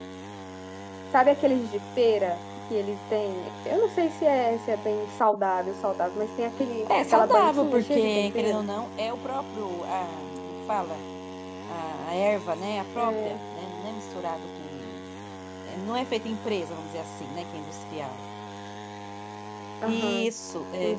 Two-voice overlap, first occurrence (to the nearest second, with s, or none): 7 s